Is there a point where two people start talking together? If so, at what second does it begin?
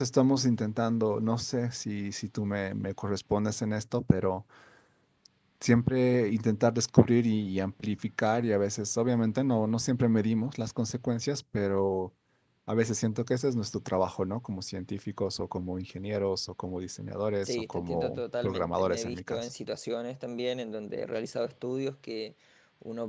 17 s

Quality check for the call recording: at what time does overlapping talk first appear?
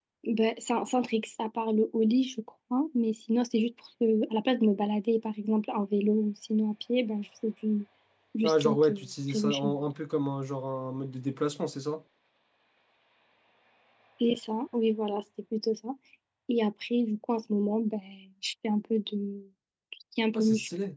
8 s

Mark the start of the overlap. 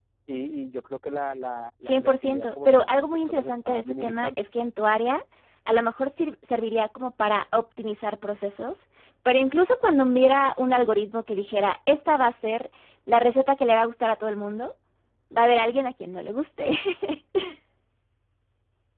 2 s

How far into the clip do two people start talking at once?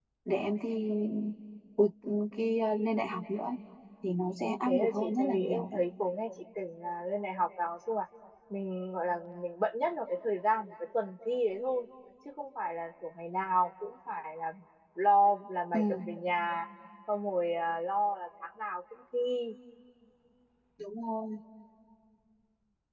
4 s

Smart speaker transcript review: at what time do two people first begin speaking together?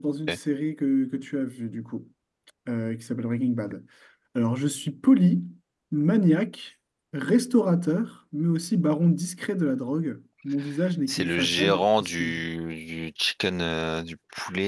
11 s

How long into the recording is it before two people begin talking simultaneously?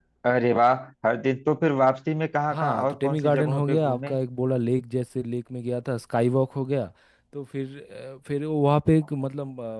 3 s

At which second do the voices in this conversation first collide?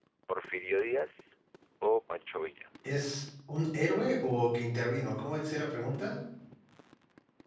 none

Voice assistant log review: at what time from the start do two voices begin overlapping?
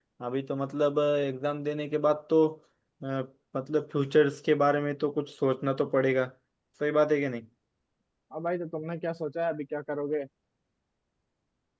none

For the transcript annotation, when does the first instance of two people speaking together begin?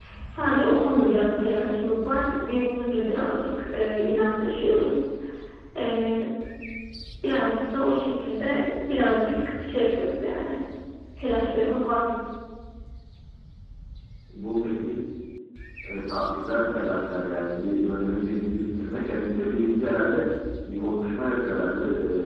none

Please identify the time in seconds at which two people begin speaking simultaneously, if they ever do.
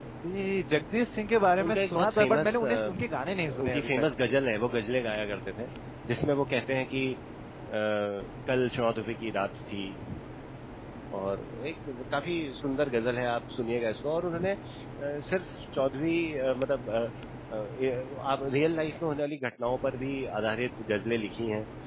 2 s

